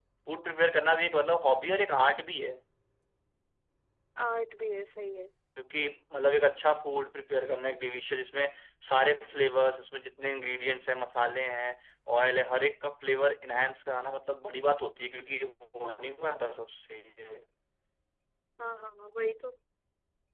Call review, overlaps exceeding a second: none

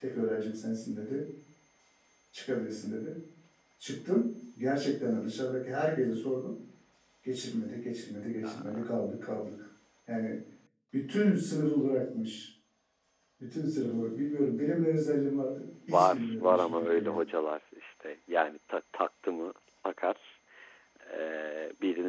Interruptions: present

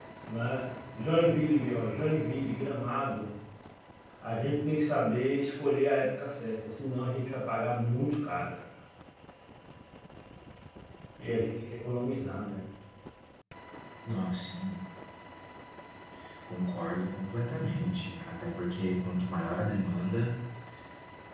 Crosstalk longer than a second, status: none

